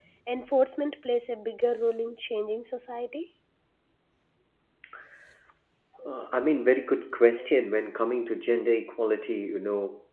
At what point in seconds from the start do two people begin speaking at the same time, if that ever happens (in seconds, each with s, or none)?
none